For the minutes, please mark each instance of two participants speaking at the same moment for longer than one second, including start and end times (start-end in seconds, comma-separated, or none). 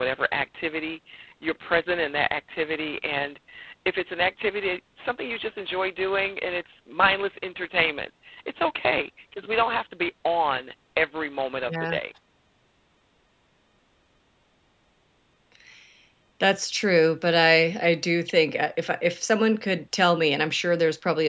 none